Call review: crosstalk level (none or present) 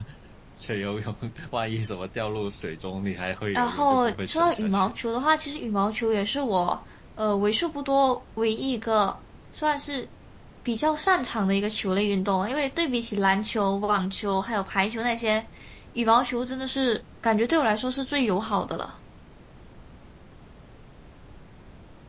present